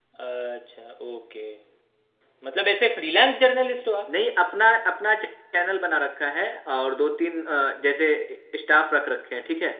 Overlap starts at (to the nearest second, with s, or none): none